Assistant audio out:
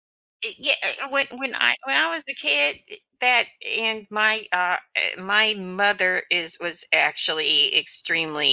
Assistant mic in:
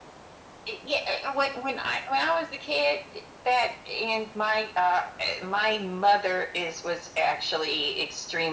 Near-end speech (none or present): none